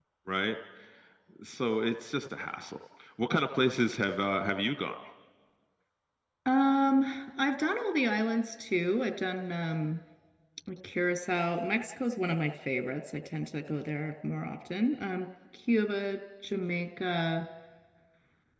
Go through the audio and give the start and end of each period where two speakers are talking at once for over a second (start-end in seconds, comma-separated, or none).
none